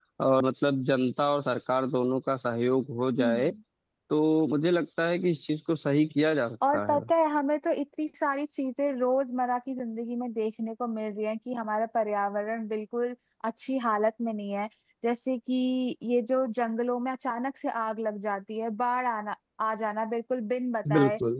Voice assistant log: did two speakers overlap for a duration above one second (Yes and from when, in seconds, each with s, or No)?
No